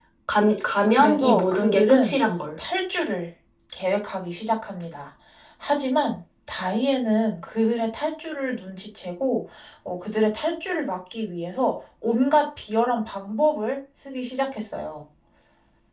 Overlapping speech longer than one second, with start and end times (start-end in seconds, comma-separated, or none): 0.9-2.2